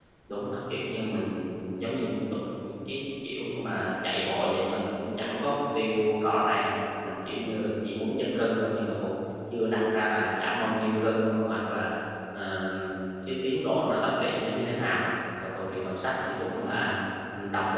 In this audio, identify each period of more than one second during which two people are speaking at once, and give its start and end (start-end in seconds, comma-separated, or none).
none